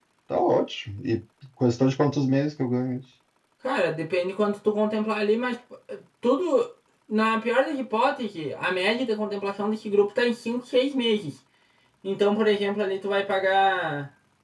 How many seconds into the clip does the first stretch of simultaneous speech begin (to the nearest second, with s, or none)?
none